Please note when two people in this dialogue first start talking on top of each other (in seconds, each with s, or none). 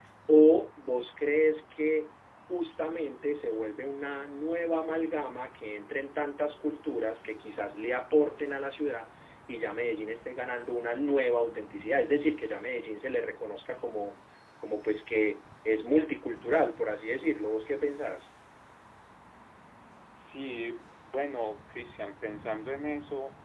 none